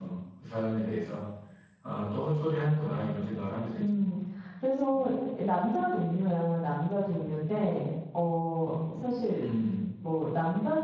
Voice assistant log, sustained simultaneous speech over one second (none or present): none